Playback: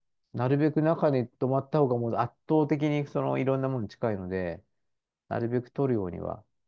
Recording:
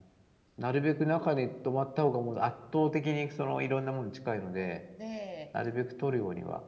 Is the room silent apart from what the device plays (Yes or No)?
No